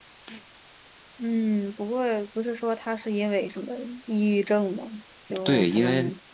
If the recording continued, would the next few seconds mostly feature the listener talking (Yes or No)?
Yes